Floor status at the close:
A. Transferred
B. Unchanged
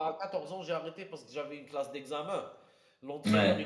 B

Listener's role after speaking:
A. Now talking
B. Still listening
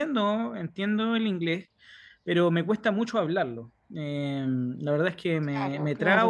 B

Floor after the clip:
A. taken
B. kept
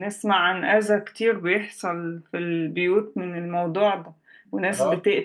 B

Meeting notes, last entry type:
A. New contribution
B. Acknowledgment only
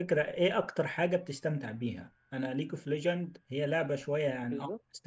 B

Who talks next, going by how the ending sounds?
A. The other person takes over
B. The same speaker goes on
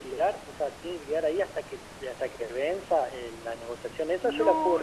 A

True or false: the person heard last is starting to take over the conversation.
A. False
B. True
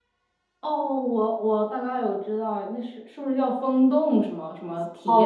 B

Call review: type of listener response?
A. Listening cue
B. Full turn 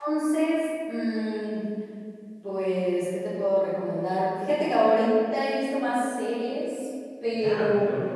B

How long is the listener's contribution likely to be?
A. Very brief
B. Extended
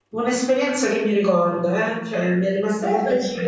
B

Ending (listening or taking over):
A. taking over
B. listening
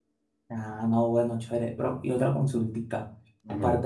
B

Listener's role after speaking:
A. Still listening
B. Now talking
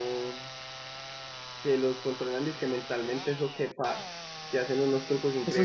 B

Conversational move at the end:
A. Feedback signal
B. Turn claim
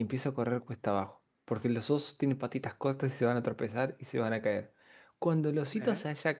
A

